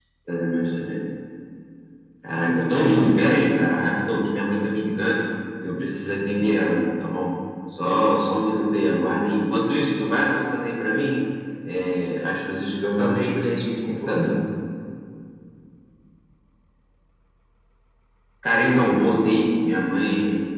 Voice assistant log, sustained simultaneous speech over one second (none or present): present